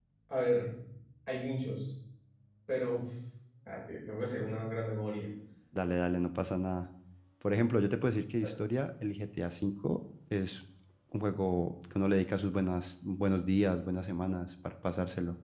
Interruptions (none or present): none